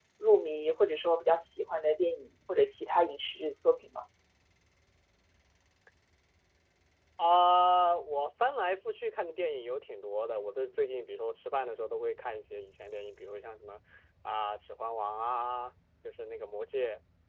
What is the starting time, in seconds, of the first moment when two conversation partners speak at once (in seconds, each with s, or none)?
none